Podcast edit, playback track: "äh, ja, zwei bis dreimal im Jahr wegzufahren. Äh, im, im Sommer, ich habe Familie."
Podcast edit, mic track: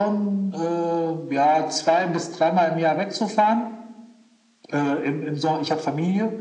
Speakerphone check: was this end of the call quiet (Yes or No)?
Yes